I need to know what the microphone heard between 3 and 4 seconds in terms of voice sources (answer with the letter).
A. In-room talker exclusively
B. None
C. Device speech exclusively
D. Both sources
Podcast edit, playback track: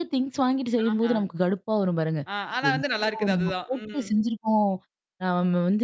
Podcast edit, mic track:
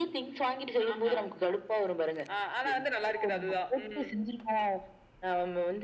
C